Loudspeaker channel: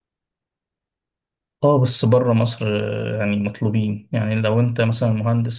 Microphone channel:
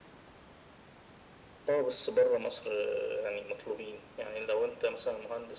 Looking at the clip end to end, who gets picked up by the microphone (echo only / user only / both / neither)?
echo only